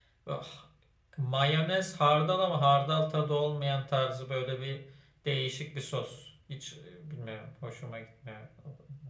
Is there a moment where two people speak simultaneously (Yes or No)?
No